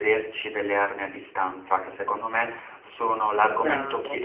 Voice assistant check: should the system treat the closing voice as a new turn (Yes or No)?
No